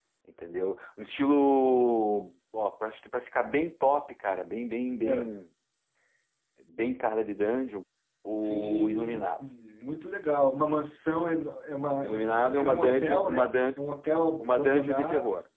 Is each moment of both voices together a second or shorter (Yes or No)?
No